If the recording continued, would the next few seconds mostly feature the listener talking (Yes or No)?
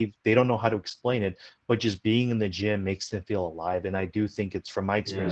No